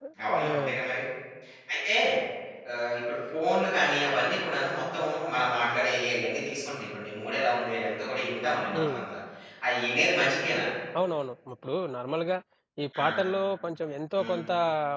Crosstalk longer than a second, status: none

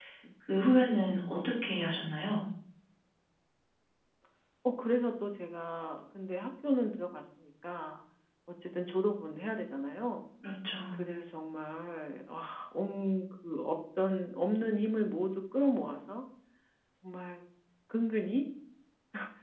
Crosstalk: none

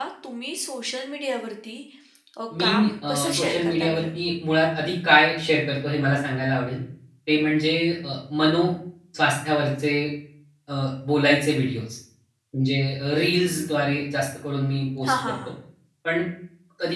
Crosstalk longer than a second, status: present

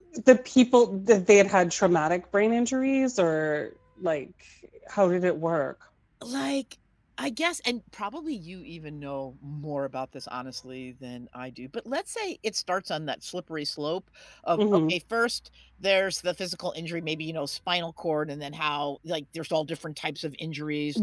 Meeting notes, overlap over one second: none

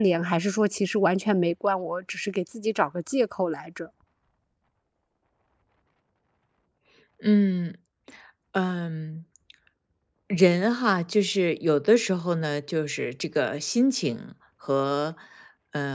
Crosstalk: none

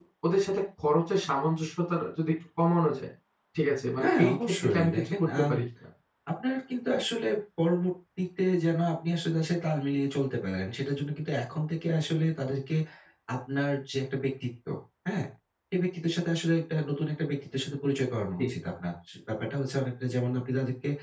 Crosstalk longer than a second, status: present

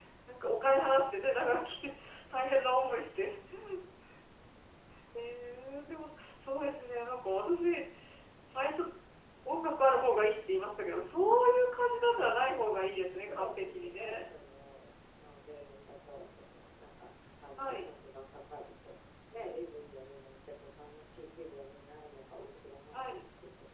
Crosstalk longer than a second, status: present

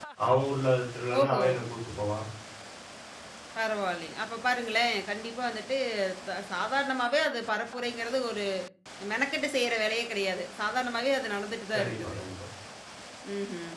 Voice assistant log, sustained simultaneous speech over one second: none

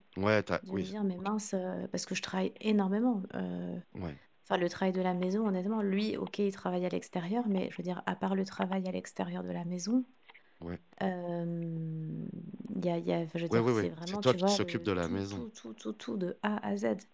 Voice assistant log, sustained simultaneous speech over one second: present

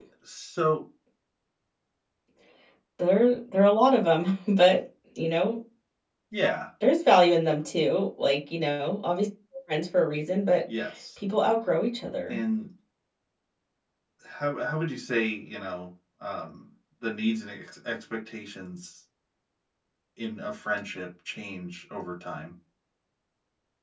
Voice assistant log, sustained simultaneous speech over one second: none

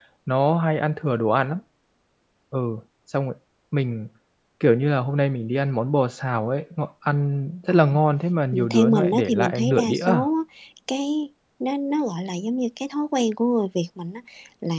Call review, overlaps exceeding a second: present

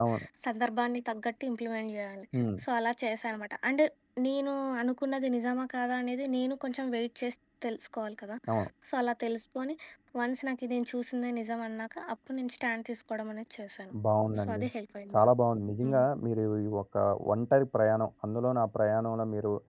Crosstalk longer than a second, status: none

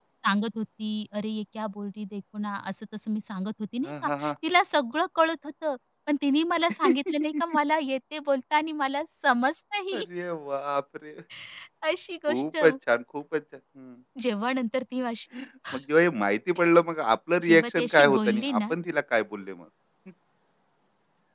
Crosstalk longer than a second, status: present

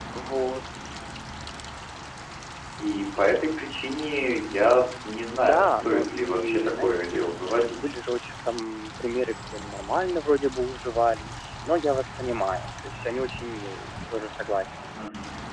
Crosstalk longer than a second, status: present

